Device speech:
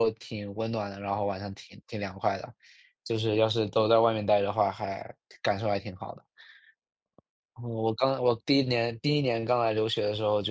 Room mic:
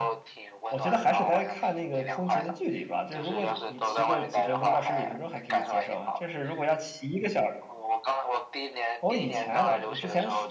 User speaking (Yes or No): Yes